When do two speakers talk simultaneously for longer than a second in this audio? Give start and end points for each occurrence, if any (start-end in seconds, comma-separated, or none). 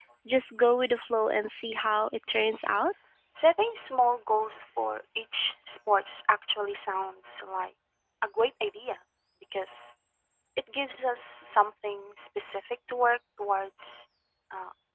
none